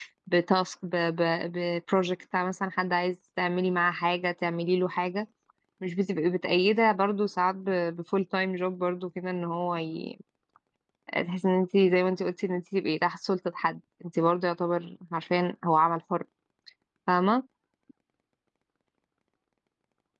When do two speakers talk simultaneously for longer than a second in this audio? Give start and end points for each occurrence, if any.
none

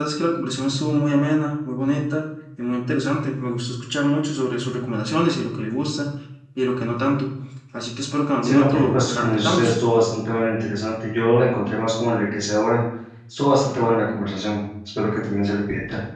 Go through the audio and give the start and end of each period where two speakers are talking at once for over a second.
8.4-9.7

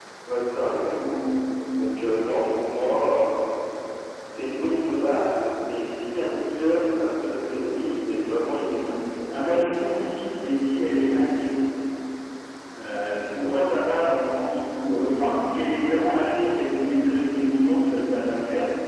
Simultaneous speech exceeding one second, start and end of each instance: none

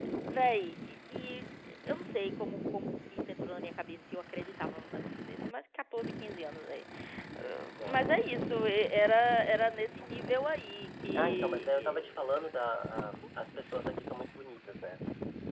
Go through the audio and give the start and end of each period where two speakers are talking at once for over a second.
11.2-12.6

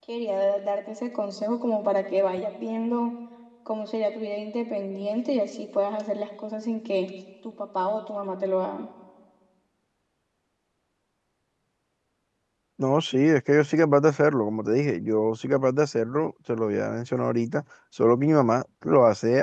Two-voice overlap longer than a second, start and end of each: none

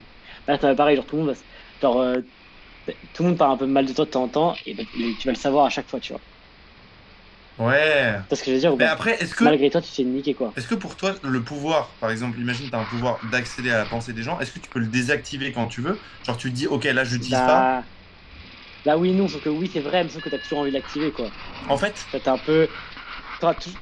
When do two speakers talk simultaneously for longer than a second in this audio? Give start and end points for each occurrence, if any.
none

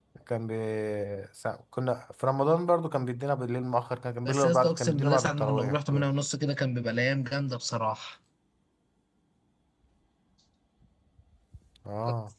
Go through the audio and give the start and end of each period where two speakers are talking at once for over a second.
4.2-6.1

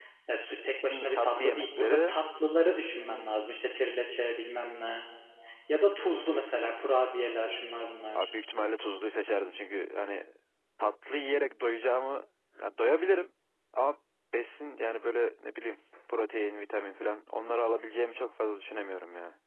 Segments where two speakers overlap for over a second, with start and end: 0.9-2.1

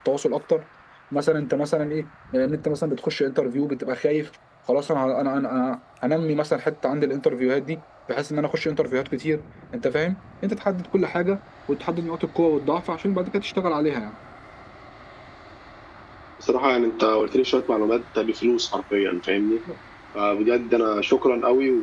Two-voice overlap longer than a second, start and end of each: none

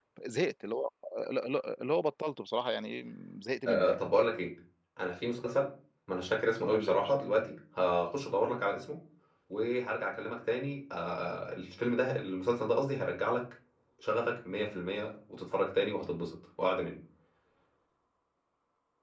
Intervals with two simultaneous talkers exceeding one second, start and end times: none

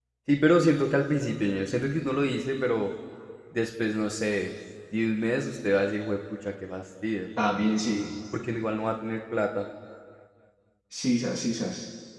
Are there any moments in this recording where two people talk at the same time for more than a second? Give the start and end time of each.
none

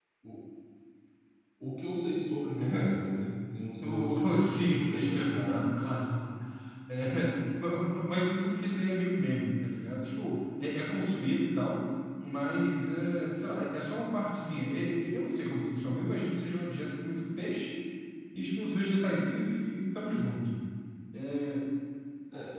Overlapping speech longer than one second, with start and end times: 3.8-5.6

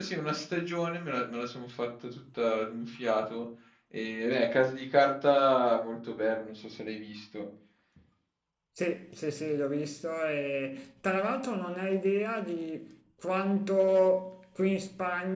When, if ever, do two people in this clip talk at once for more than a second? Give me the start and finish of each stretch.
none

